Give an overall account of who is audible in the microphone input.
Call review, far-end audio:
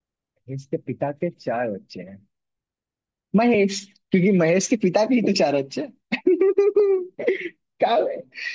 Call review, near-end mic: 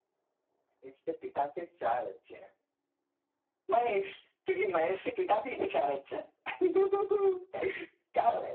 echo only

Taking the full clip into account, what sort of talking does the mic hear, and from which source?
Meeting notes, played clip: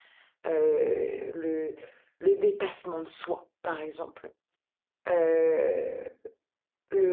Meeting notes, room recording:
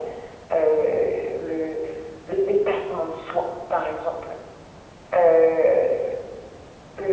echo only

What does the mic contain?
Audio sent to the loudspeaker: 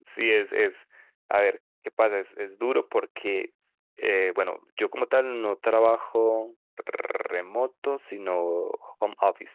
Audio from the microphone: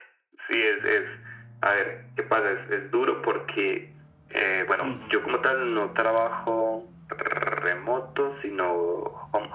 both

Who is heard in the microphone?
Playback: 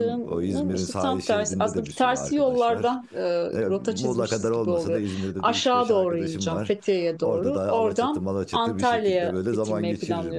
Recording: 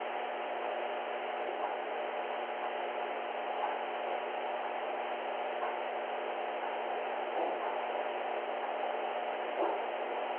neither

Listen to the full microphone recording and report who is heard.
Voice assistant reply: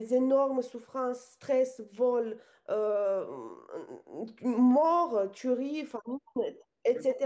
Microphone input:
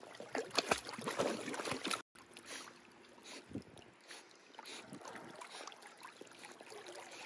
neither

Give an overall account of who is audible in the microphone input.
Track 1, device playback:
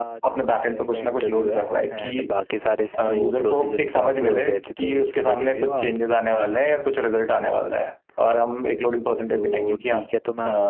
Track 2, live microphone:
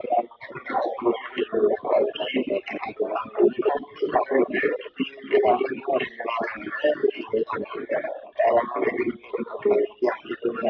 echo only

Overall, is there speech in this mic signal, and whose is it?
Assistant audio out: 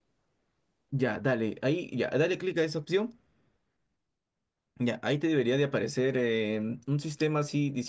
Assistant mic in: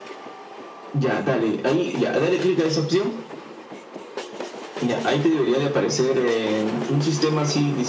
echo only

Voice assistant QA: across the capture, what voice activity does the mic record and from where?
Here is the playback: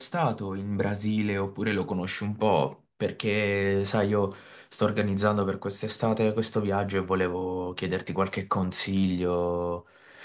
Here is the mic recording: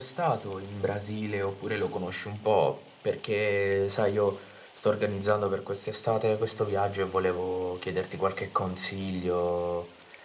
echo only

